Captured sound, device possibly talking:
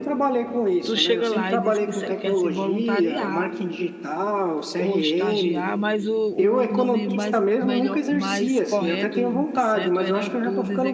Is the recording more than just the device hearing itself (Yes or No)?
Yes